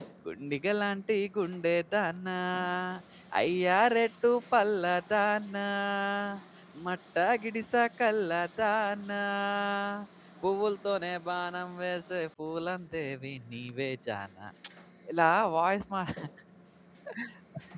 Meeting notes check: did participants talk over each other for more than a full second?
No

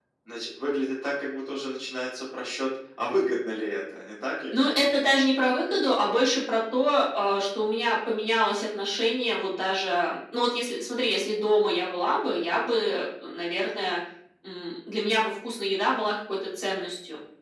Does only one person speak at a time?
Yes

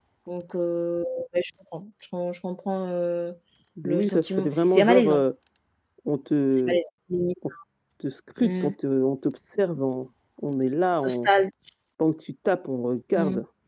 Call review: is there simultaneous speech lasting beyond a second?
Yes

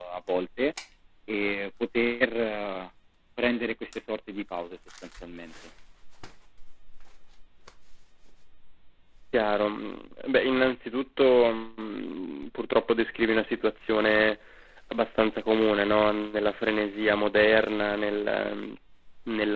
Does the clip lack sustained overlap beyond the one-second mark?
Yes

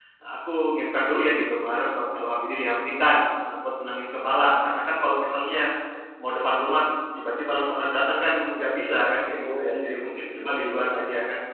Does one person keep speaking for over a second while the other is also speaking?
Yes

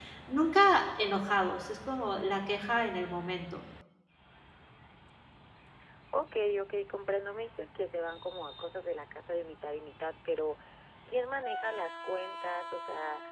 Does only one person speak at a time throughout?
Yes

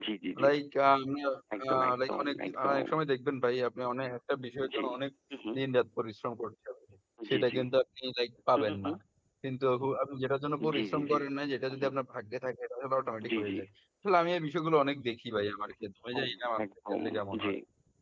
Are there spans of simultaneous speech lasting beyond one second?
Yes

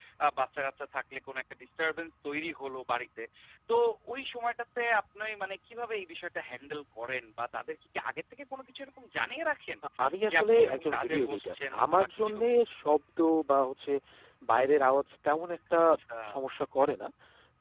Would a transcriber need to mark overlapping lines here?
Yes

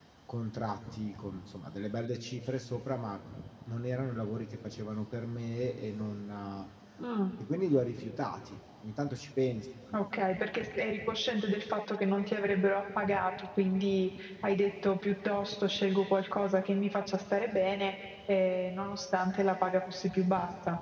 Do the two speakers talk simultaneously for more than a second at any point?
No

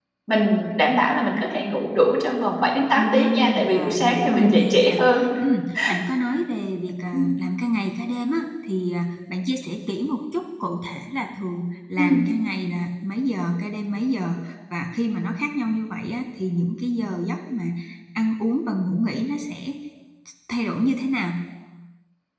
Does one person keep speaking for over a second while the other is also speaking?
Yes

